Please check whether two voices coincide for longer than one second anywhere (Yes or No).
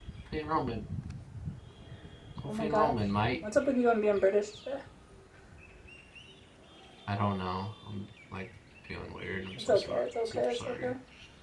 Yes